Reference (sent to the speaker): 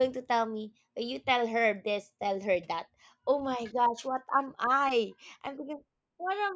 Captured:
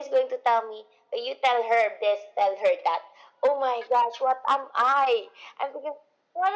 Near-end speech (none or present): none